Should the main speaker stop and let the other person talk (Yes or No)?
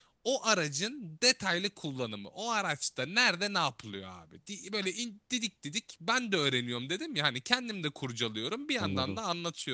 No